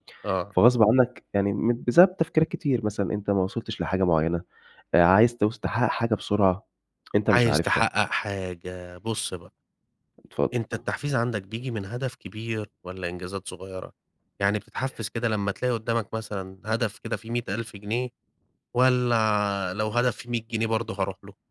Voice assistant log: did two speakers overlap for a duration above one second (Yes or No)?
No